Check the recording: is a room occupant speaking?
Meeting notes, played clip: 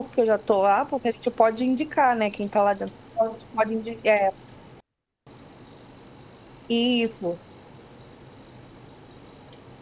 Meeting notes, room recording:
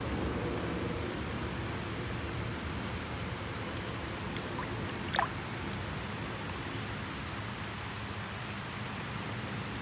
No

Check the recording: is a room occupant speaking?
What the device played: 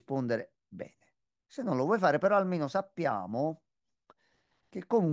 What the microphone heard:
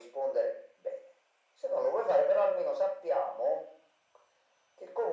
No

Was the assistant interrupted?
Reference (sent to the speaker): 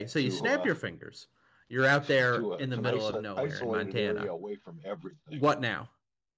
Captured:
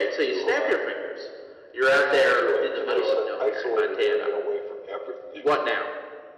No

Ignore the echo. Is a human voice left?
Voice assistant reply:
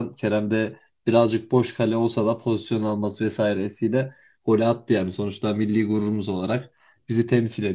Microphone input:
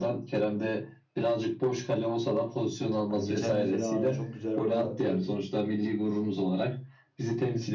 Yes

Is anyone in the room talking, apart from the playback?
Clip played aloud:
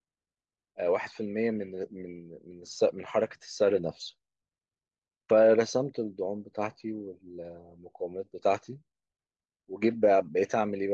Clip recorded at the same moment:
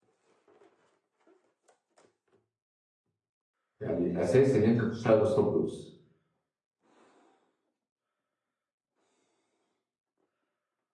Yes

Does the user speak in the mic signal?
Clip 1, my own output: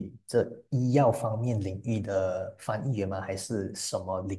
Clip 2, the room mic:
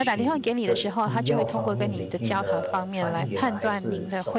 Yes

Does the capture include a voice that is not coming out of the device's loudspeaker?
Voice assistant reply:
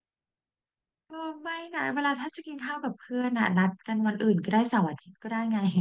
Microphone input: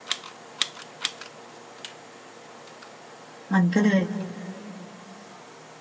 Yes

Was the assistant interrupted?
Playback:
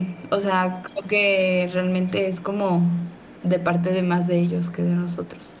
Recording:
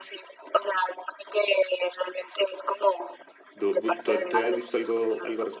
Yes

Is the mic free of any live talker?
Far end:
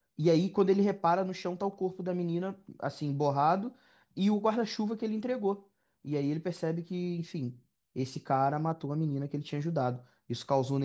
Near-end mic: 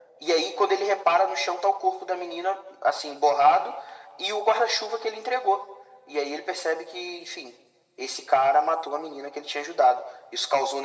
Yes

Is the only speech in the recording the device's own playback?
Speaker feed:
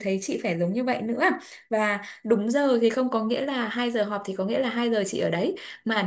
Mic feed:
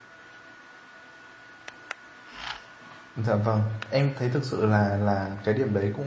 No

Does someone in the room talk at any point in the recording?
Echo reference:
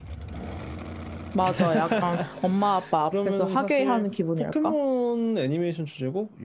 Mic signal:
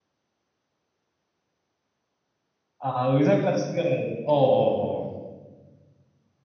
Yes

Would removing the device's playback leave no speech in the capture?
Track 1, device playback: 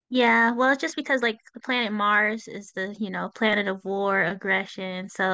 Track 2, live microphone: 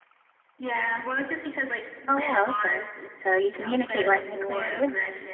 No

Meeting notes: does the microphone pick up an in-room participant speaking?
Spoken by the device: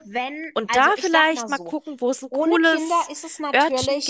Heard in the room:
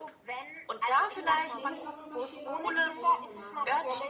Yes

